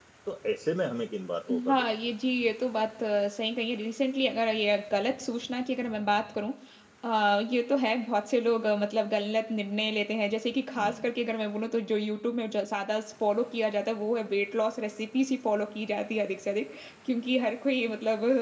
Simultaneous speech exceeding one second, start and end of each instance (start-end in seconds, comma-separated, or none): none